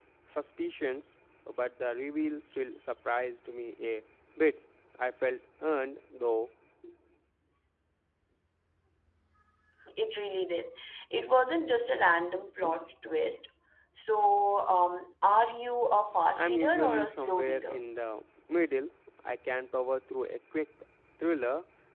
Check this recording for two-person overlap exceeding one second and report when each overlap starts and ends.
16.4-17.8

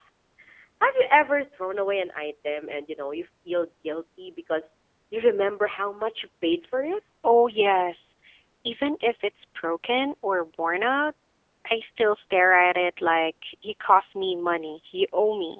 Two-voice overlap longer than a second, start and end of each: none

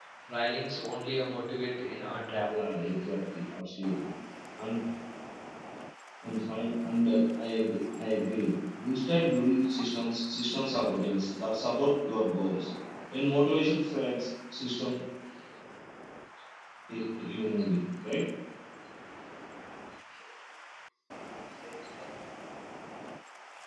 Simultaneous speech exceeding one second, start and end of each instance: none

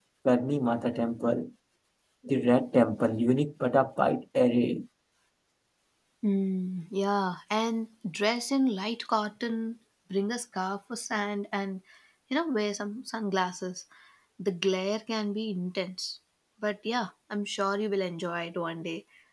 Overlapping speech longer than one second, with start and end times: none

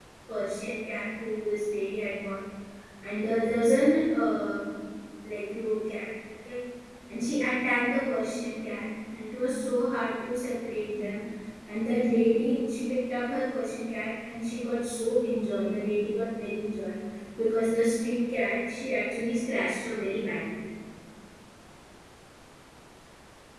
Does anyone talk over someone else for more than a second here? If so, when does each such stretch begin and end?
none

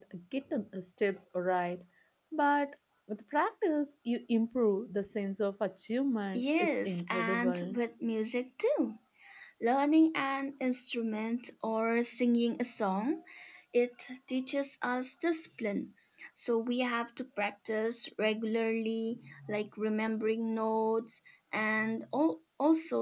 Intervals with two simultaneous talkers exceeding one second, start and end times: 6.3-7.8

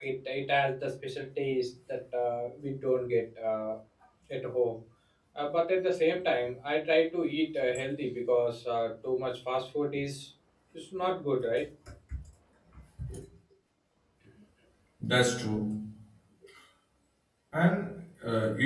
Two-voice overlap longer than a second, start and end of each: none

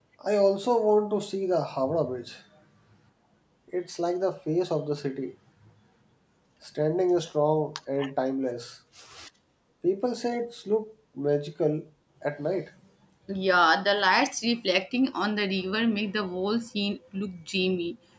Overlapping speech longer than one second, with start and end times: none

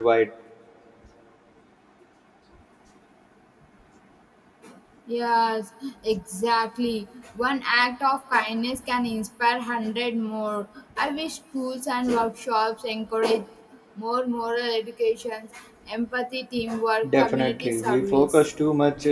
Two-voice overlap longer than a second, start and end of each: 17.2-18.5

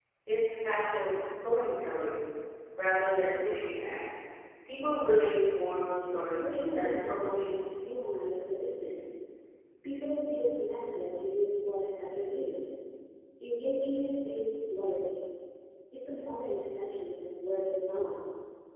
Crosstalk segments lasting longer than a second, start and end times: 6.1-7.6

